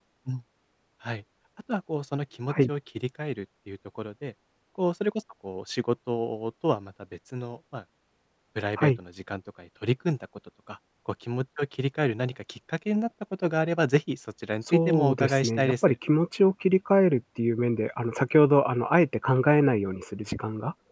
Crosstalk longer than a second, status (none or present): present